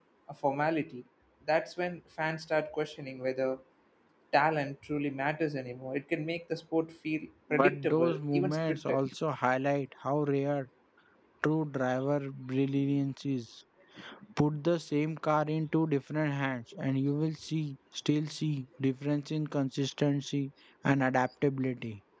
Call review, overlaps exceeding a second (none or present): present